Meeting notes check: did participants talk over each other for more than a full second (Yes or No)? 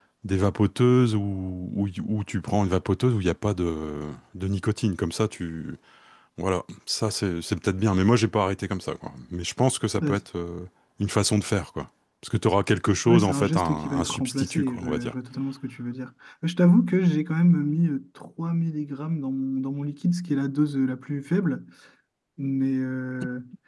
Yes